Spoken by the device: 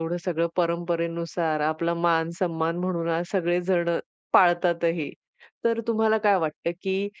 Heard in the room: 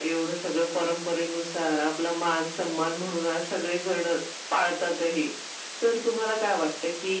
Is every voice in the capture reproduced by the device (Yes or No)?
Yes